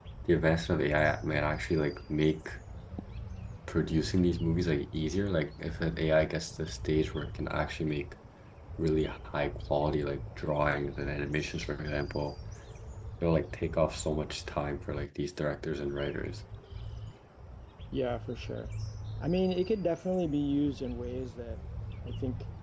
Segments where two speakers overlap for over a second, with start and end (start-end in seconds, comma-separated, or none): none